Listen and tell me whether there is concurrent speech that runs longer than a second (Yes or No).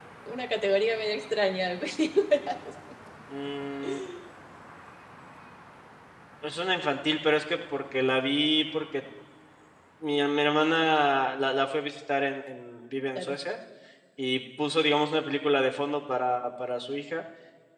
No